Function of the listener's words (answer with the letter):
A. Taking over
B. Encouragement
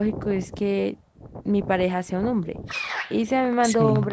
B